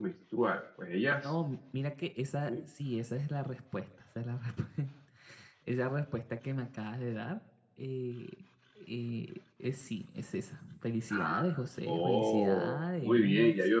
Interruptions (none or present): present